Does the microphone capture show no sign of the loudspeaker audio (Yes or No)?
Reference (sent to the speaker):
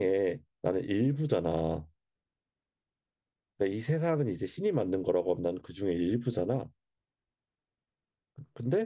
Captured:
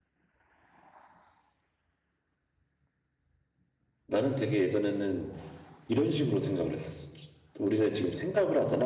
Yes